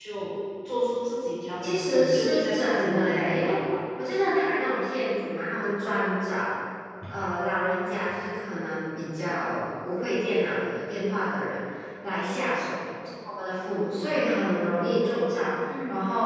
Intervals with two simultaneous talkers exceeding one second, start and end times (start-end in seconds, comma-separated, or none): 1.6-3.6